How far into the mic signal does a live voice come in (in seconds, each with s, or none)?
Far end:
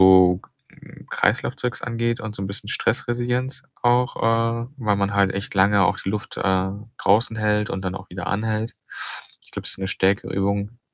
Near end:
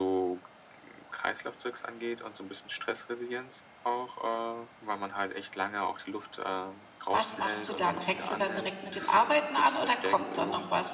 7.1 s